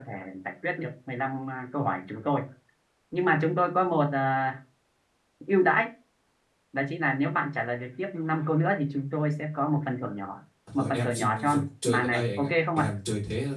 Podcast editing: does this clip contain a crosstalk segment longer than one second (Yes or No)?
Yes